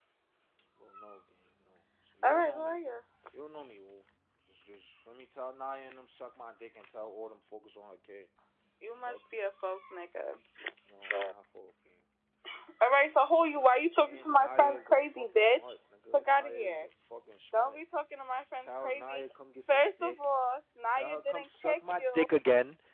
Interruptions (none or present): present